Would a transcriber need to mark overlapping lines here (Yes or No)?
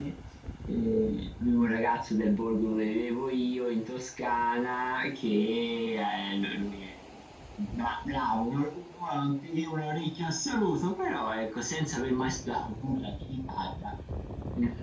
No